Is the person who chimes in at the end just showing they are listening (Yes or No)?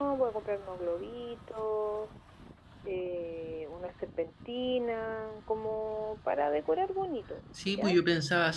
No